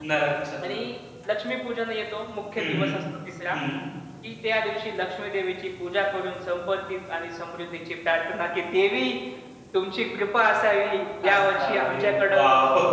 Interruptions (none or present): present